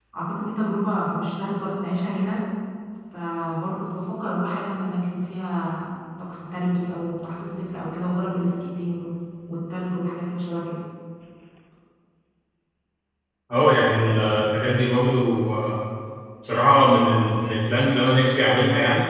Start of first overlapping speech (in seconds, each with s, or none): none